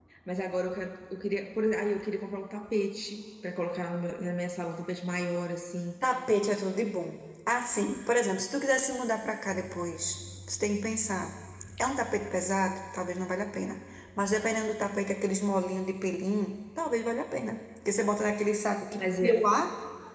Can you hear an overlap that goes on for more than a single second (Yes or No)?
No